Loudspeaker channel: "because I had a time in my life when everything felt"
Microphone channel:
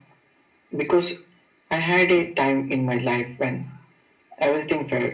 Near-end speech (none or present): none